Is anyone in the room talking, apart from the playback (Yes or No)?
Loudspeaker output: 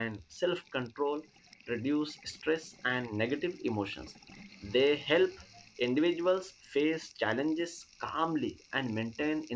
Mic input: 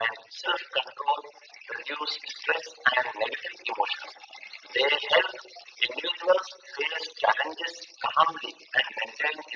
No